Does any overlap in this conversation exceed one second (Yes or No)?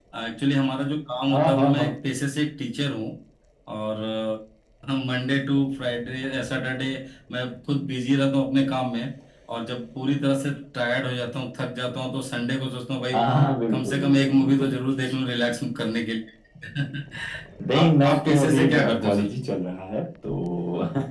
Yes